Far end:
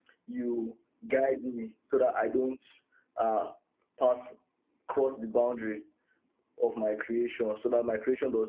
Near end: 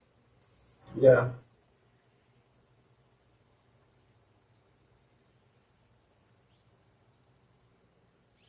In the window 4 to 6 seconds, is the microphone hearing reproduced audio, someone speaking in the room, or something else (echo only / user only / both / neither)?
neither